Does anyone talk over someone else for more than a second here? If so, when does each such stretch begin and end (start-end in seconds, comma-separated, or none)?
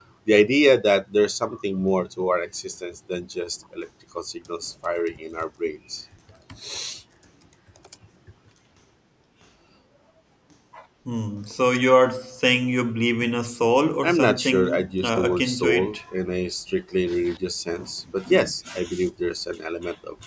14.0-15.9